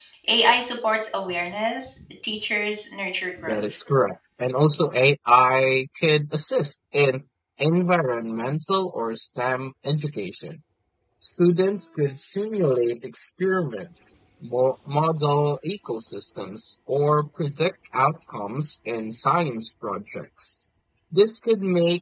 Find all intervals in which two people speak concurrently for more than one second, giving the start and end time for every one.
none

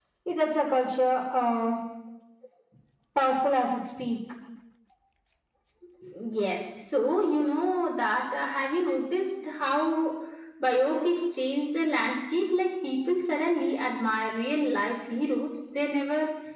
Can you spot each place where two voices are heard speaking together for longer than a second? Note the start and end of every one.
none

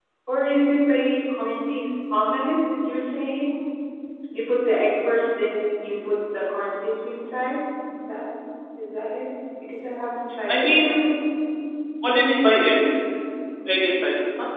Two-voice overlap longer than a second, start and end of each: none

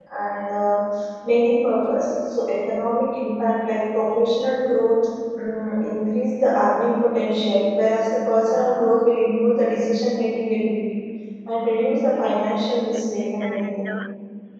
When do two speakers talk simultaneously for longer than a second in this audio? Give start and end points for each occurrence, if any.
12.2-13.9

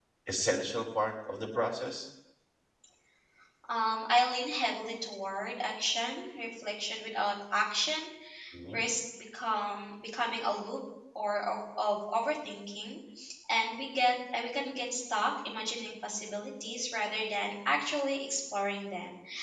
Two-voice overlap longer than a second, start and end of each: none

